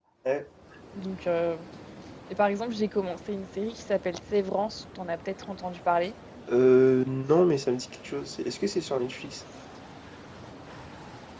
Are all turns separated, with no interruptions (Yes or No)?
Yes